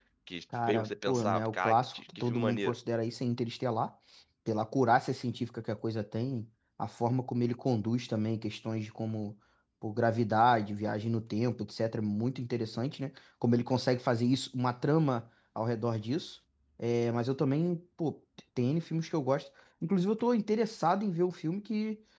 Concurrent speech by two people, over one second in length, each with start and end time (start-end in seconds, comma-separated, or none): 0.7-2.8